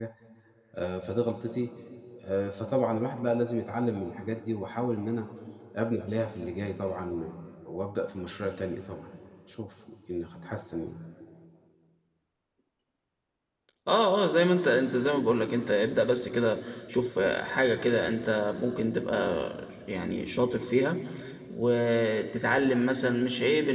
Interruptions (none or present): none